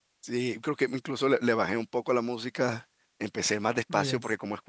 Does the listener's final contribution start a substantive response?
No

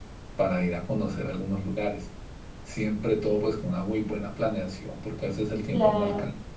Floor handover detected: No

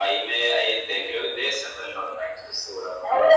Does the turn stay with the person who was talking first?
No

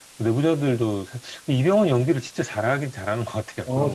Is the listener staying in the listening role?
No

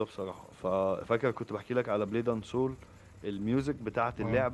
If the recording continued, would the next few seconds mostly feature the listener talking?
No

